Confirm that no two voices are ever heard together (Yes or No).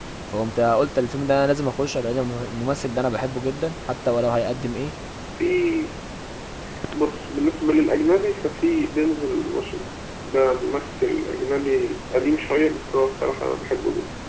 Yes